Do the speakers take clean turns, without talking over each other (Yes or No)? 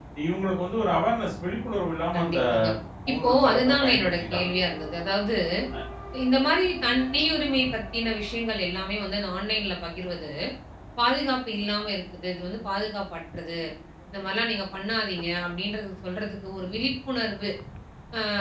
No